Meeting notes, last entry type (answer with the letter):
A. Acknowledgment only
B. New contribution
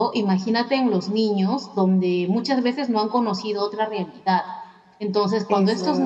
A